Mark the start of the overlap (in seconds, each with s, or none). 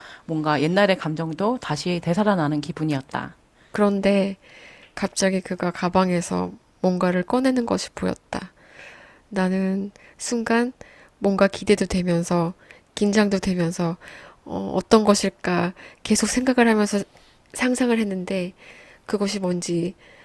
none